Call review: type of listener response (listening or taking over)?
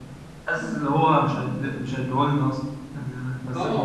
taking over